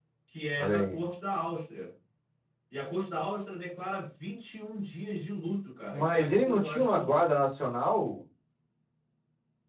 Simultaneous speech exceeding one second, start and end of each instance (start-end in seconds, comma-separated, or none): 5.8-7.2